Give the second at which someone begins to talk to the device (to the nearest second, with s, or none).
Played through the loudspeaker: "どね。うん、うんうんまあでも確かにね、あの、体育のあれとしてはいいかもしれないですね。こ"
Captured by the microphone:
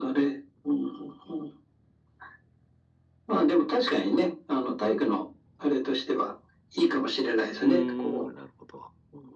8 s